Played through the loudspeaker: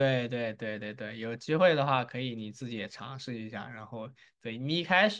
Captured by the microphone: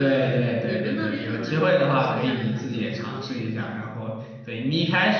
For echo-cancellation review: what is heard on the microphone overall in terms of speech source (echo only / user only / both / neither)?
both